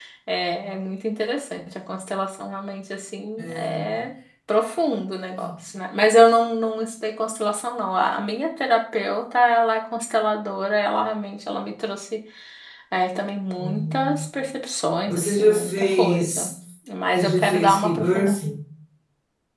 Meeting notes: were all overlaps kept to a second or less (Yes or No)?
No